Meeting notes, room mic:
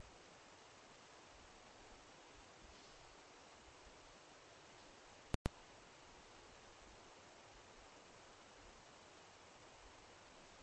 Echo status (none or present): none